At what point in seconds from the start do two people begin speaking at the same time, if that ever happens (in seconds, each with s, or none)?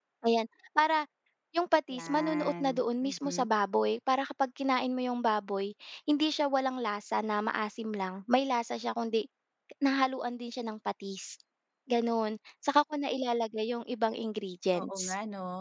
1.9 s